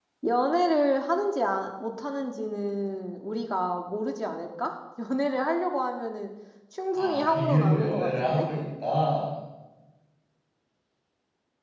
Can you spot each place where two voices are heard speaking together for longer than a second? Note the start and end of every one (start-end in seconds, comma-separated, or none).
7.0-8.5